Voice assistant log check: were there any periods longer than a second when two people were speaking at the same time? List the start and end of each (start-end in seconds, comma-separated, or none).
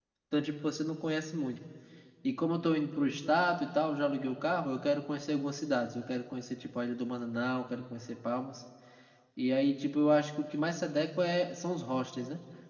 none